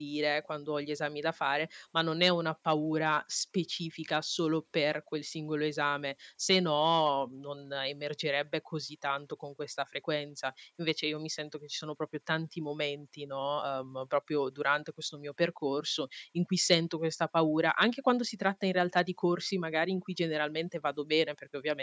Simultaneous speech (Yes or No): No